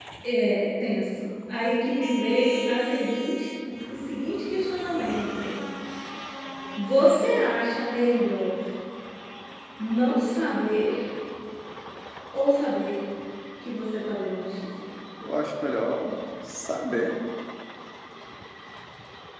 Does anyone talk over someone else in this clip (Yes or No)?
No